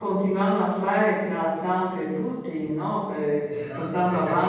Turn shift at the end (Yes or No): Yes